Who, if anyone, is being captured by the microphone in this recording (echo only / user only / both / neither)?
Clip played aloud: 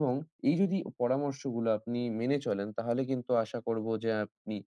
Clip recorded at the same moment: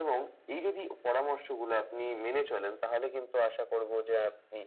echo only